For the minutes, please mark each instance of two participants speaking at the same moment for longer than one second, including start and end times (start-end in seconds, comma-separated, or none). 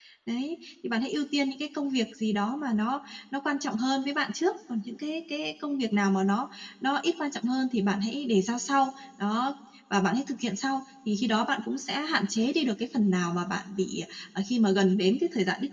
none